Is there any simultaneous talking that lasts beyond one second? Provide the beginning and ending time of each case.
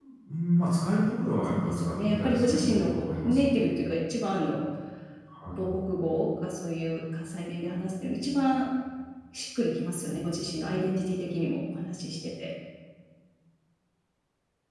1.5-3.5

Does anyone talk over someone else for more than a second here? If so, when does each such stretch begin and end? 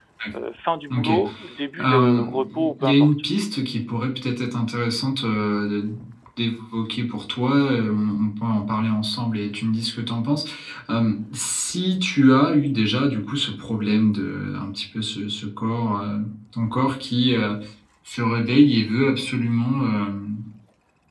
1.8-3.1

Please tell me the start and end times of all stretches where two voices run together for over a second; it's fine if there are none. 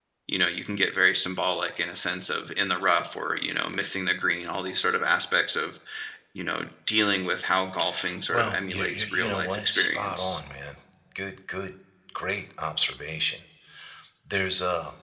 8.3-10.4

